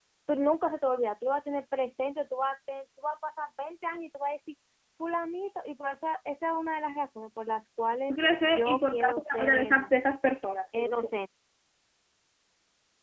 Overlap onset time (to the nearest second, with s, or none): 8 s